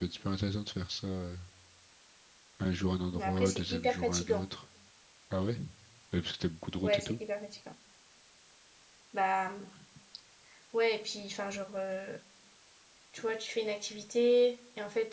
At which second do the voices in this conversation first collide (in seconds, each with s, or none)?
3.1 s